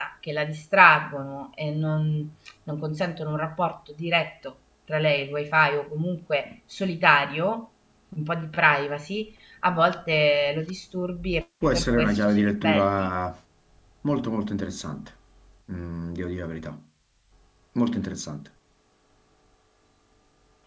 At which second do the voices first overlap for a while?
12 s

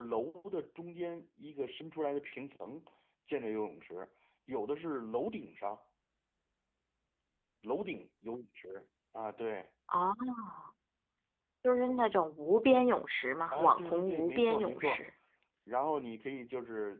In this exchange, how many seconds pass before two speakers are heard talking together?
14 s

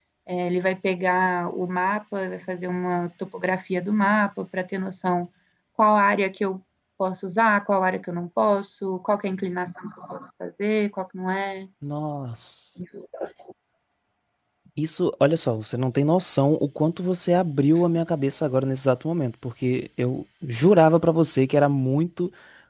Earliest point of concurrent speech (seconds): none

